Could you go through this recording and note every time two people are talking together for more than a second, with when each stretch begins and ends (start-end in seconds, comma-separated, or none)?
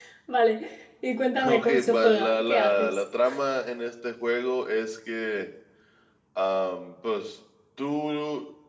1.4-3.0